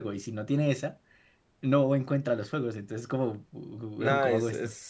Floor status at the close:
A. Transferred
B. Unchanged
A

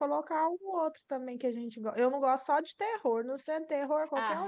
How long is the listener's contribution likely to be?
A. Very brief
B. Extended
B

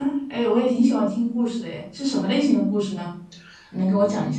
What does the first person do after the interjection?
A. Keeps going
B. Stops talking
B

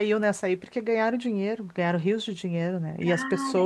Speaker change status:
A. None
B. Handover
A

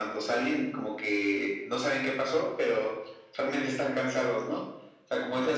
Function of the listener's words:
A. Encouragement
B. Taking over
B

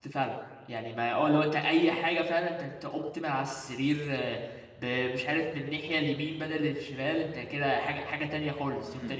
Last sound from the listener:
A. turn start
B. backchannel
A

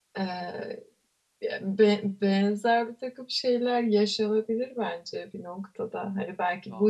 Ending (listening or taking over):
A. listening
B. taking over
A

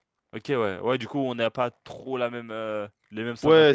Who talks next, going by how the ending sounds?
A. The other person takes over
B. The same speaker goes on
A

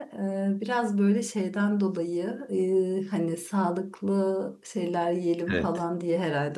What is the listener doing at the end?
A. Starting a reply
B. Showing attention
B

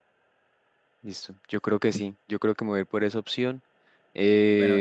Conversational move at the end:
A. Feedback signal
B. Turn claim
B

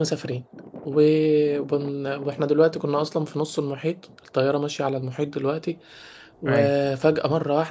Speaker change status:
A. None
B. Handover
A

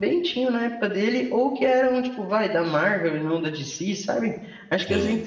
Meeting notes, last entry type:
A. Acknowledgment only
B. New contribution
A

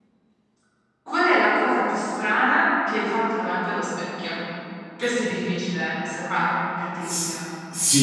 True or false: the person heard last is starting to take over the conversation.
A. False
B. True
B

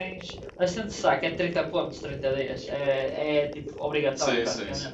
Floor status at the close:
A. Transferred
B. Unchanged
A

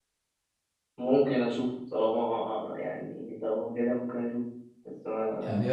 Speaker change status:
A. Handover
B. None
A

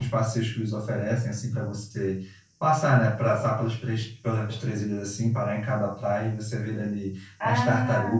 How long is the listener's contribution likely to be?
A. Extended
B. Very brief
B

